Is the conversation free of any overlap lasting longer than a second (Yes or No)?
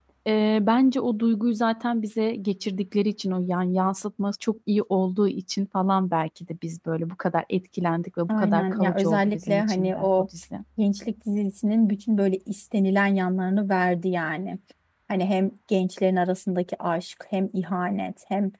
No